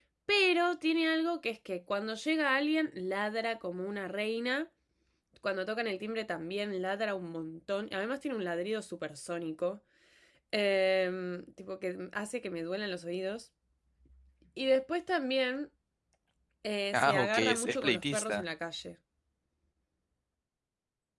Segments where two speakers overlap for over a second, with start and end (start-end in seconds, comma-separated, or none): 16.9-18.4